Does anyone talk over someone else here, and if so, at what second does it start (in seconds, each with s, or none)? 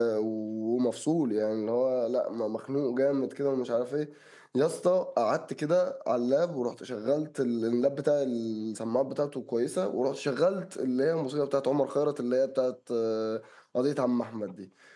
none